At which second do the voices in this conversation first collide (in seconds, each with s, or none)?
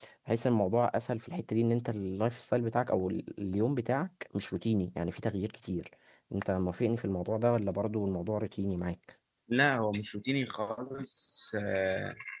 none